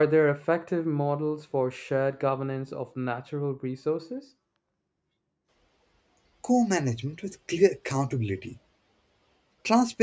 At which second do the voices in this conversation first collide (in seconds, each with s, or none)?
none